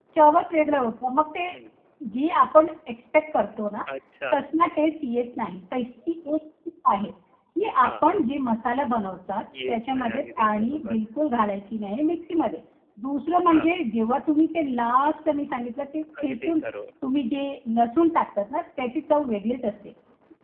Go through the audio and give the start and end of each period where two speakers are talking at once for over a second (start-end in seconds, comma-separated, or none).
9.7-11.0